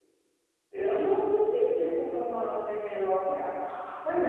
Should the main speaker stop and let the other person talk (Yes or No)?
Yes